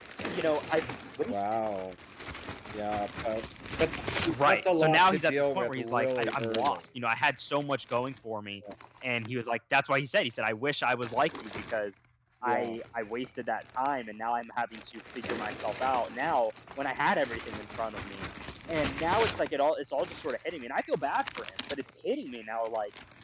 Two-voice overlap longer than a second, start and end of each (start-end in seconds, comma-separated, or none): 4.5-6.8